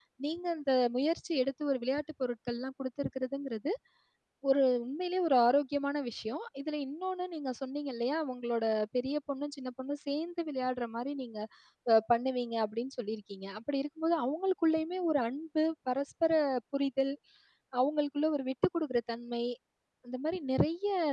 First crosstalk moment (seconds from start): none

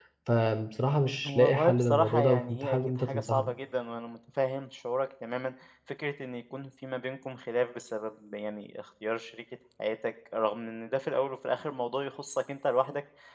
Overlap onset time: 1.2 s

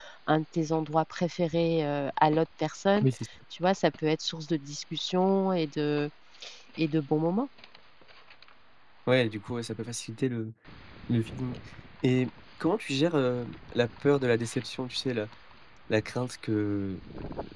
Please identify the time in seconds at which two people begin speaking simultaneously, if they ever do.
none

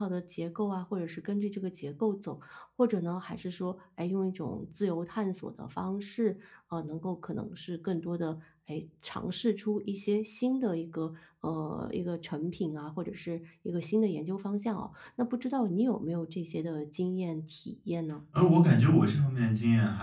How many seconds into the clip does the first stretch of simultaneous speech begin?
none

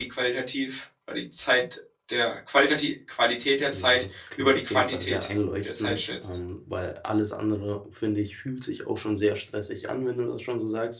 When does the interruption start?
3.7 s

